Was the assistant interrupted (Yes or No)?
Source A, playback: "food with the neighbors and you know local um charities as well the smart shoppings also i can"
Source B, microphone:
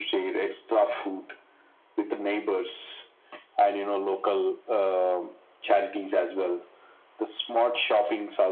No